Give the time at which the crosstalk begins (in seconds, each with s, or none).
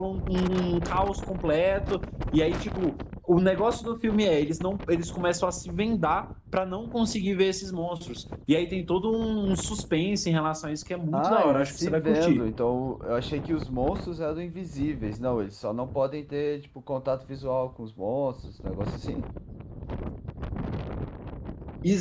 11.1 s